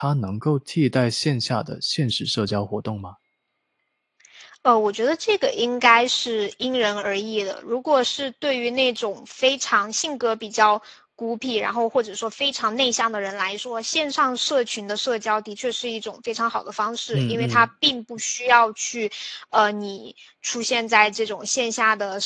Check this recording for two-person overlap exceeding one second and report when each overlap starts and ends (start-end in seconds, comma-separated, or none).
none